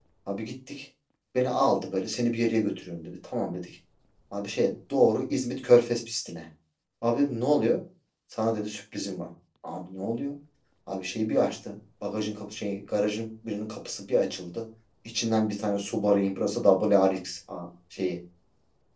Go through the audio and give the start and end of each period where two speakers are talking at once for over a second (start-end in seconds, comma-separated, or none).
none